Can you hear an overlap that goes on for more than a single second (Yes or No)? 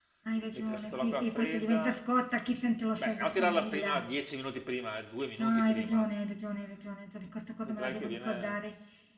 Yes